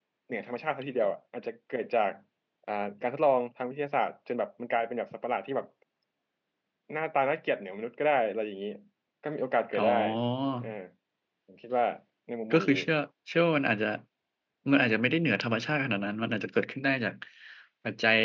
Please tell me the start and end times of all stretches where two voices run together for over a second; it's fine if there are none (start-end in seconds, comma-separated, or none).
none